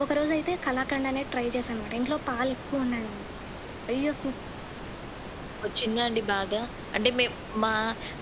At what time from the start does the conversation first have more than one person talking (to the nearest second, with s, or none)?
none